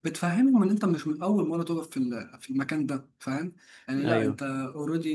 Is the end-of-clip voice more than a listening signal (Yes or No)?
No